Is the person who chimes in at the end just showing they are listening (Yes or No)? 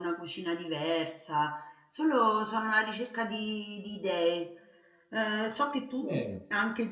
Yes